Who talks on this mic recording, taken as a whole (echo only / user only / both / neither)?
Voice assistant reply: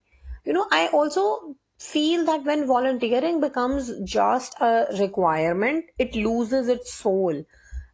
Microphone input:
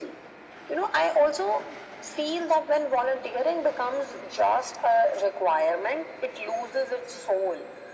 echo only